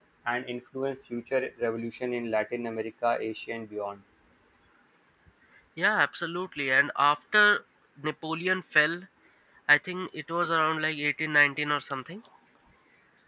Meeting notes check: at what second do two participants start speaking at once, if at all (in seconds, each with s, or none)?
none